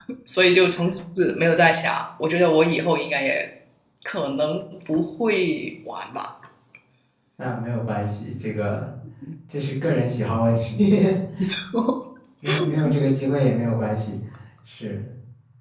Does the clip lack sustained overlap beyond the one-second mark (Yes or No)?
Yes